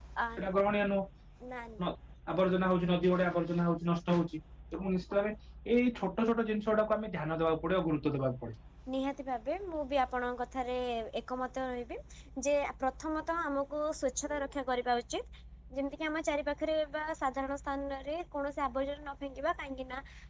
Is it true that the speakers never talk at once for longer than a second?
Yes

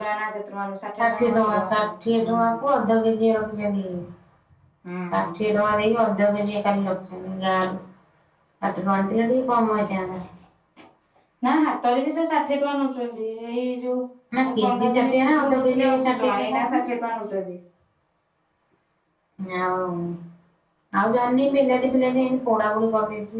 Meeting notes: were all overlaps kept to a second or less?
No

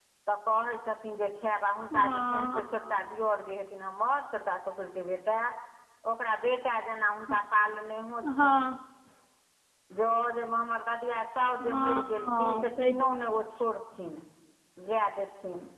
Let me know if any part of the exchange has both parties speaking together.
Yes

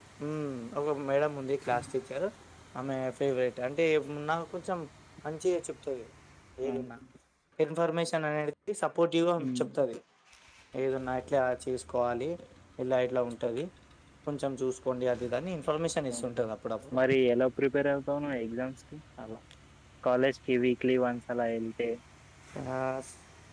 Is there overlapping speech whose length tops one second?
No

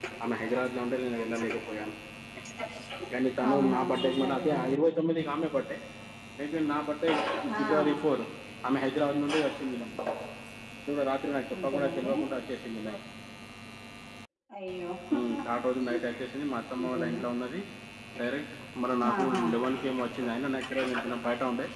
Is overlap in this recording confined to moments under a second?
No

